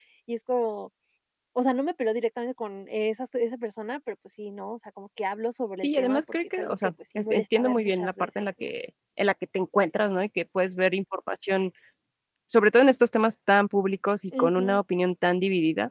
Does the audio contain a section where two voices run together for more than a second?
Yes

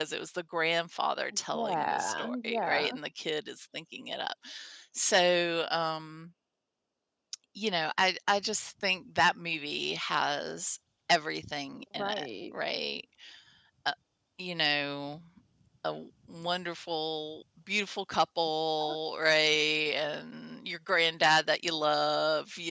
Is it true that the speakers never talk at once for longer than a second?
No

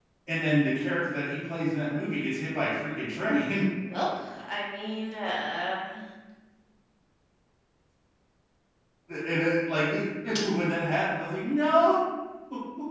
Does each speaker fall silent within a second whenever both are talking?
Yes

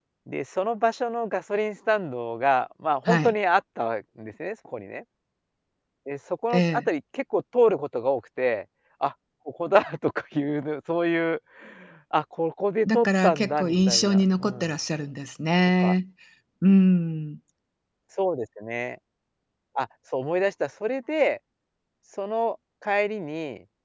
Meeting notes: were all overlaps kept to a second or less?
No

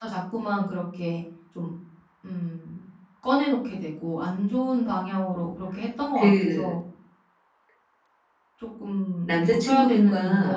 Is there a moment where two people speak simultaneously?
Yes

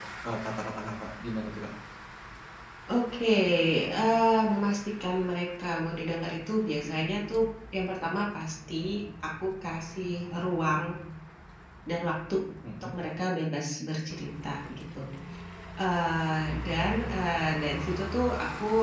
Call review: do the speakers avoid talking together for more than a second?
Yes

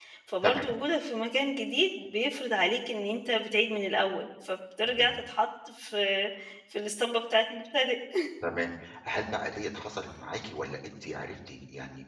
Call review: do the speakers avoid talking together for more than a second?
Yes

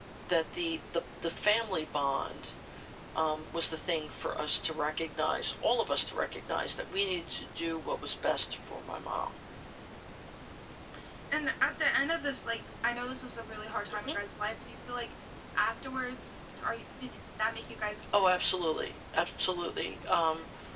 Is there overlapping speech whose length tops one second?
No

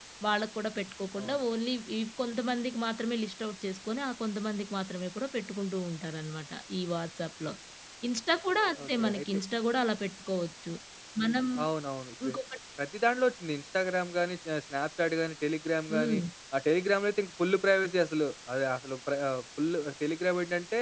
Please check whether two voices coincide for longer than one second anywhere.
No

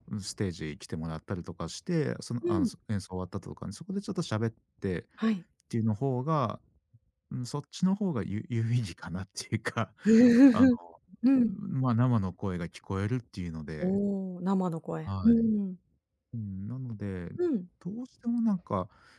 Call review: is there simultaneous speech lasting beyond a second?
No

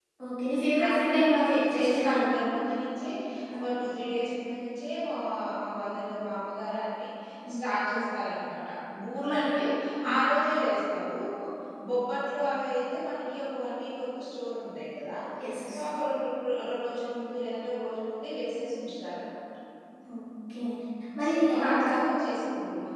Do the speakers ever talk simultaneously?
Yes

